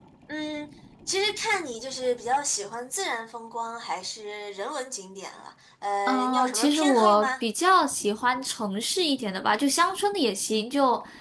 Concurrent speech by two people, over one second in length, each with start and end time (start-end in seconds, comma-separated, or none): 6.1-7.3